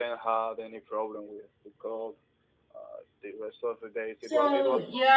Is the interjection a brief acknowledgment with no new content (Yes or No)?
No